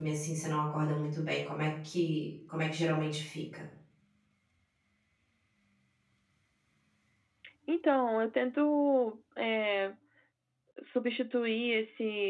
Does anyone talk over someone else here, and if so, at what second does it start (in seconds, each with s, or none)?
none